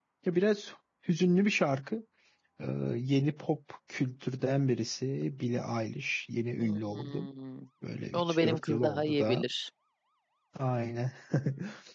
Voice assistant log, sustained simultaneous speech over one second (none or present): present